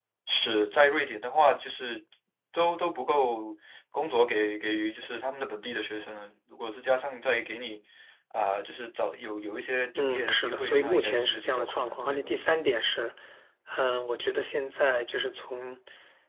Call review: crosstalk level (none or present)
present